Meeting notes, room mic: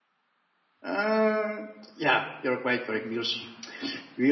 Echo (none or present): none